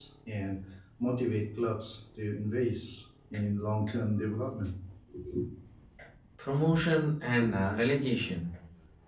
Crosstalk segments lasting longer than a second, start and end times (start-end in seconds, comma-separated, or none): none